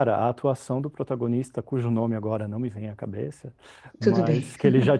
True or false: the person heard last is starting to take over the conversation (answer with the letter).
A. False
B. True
A